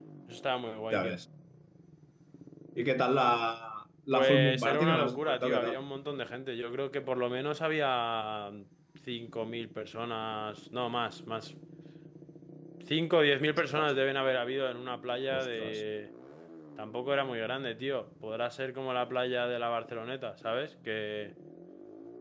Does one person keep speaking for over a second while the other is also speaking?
Yes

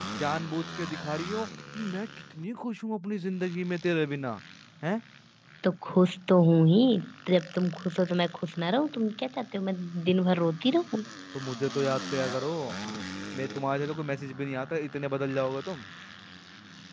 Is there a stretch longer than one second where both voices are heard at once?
No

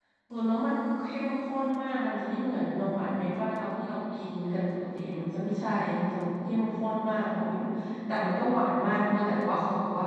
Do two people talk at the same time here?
No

